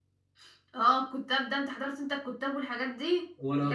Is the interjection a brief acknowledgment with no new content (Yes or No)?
Yes